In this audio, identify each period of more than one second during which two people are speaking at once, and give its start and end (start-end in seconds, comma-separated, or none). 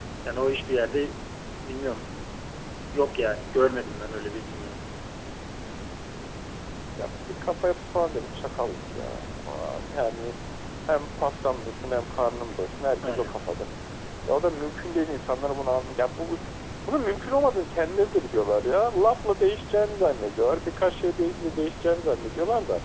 none